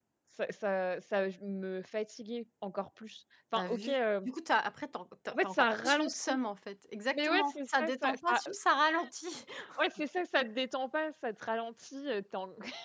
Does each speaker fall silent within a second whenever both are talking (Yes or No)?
No